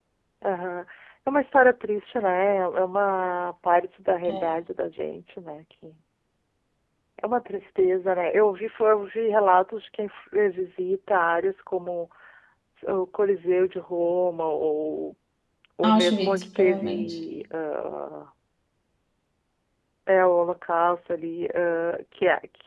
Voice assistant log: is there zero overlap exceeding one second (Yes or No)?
No